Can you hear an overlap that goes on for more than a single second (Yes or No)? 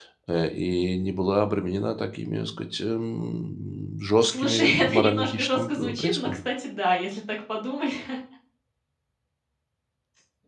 Yes